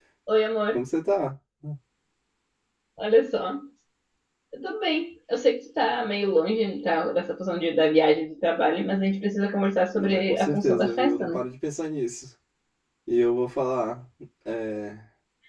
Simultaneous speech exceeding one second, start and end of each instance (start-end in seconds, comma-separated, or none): 10.0-11.4